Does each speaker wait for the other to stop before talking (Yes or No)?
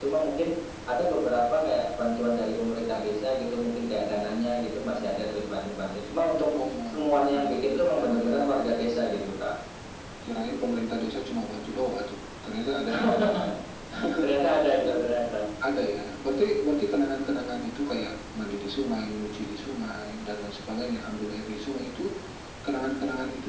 No